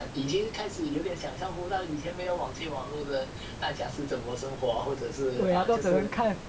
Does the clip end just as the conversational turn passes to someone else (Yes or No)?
Yes